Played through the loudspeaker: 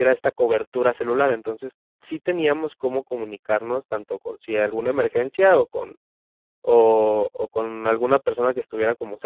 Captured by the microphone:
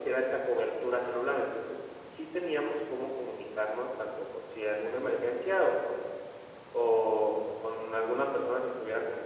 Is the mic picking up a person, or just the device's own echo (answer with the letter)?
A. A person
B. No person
B